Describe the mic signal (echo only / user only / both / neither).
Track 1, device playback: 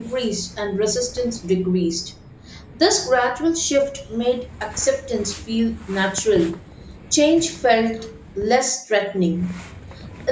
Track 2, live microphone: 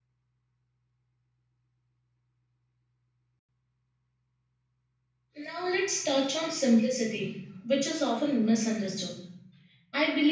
user only